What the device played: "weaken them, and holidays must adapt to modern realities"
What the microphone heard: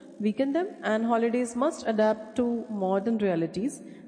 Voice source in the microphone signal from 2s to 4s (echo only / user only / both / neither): echo only